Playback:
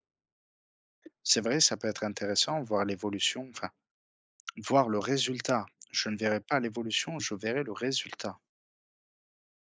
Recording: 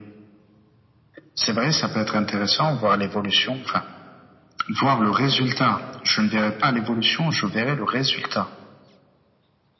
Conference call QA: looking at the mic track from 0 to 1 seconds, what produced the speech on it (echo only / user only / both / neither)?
neither